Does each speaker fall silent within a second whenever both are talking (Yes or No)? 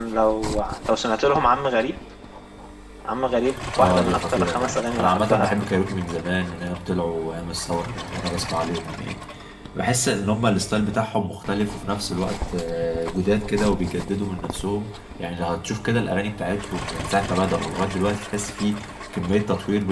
No